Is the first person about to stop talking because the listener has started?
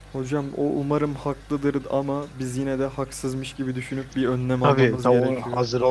Yes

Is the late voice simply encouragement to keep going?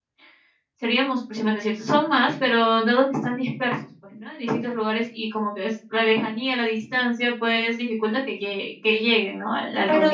No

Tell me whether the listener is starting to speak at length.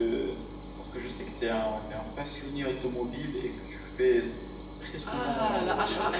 Yes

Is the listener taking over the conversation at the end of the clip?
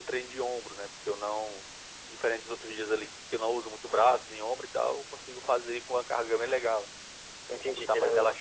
Yes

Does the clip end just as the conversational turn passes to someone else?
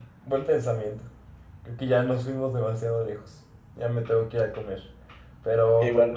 No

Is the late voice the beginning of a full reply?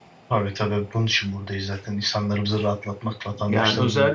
Yes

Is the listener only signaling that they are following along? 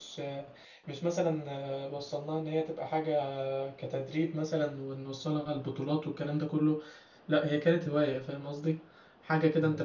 Yes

